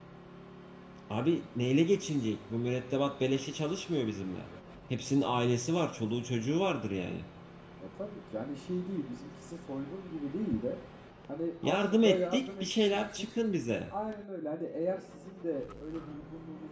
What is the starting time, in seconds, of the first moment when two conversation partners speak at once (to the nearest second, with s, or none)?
12 s